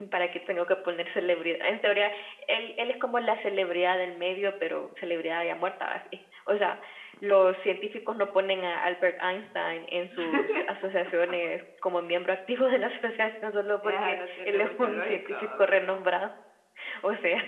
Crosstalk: present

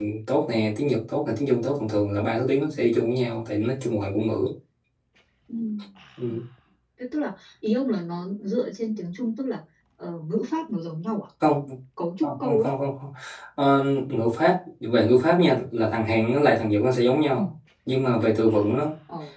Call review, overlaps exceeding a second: none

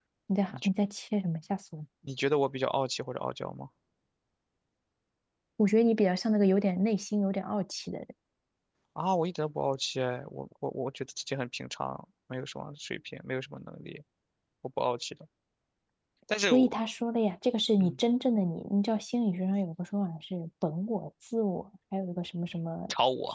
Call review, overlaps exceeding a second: none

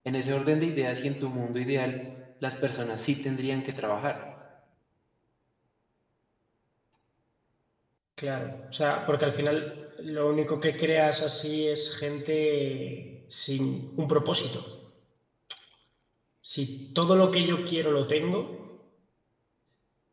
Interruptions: none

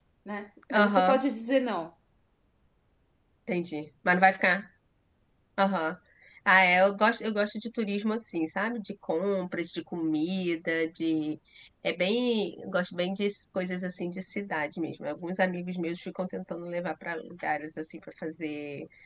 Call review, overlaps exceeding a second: none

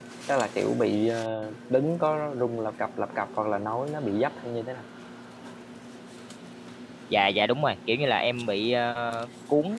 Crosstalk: none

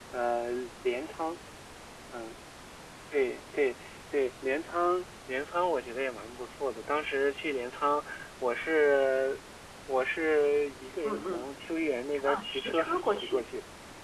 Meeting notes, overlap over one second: present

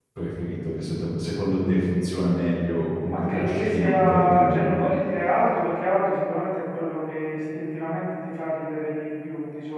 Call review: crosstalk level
present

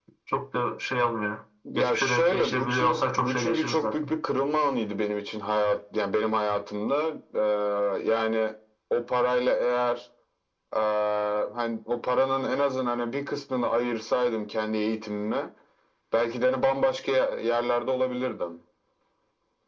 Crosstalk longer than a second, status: present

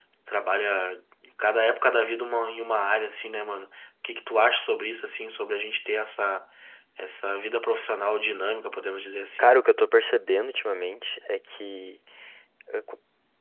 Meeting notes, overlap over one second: none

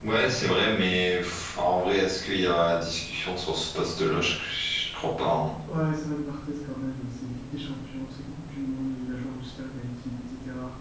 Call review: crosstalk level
none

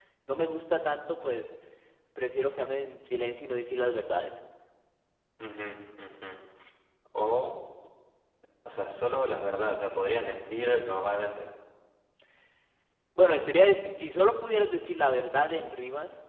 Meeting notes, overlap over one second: none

